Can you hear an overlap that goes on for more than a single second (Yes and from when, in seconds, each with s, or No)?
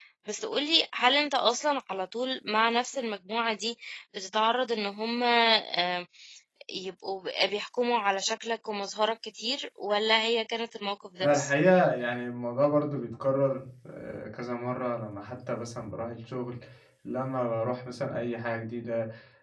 No